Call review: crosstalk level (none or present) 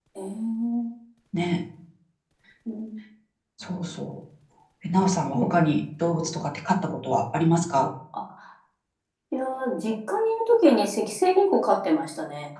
none